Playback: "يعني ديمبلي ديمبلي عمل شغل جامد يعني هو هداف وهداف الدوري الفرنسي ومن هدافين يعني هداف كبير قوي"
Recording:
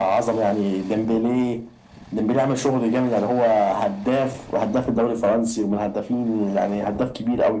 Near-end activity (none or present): none